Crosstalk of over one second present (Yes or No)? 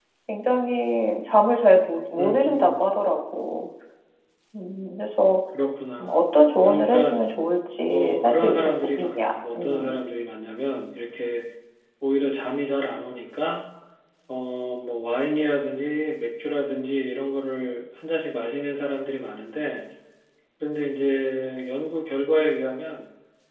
Yes